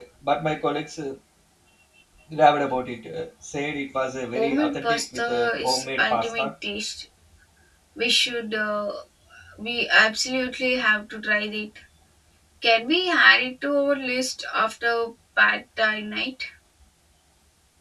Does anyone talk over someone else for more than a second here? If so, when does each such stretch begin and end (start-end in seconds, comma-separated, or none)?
4.3-6.5